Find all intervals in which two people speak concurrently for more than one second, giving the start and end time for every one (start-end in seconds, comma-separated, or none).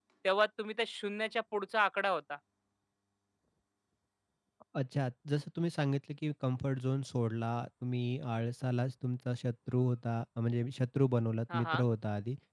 none